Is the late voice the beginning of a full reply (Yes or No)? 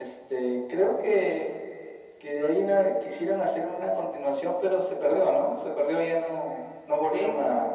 Yes